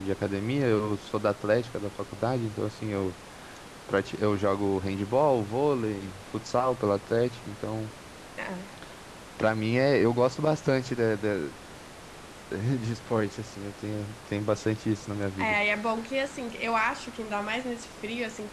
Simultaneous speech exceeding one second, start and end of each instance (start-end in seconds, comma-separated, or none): none